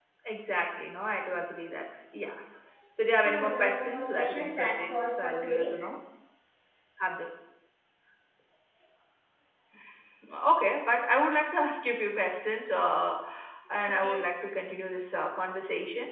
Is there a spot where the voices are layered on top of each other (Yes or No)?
Yes